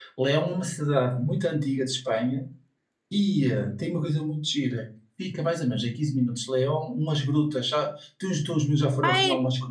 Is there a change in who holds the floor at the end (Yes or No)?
Yes